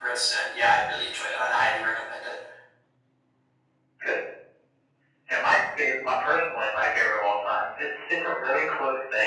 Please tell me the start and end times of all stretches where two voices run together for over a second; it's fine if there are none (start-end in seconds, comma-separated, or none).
none